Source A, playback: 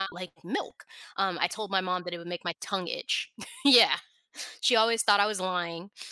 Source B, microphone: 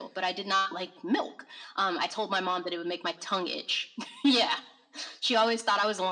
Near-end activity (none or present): none